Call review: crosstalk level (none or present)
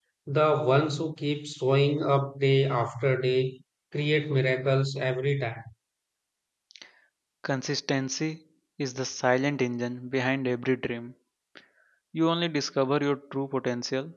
none